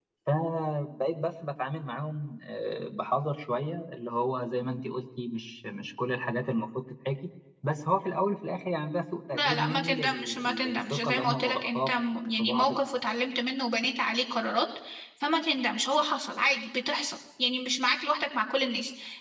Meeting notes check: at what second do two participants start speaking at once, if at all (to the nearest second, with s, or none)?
9 s